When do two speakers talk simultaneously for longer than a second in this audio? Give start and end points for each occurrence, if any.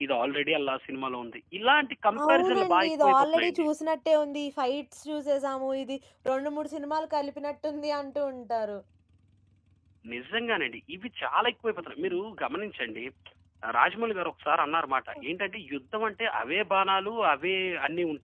2.3-3.7

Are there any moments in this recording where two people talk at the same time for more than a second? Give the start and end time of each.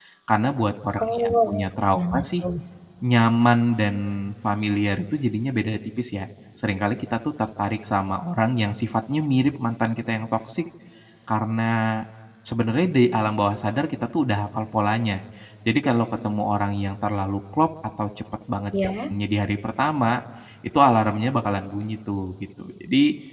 1.0-2.2

